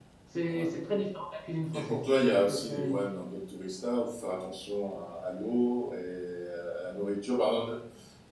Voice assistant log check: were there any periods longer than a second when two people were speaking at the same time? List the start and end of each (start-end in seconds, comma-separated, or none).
1.7-3.0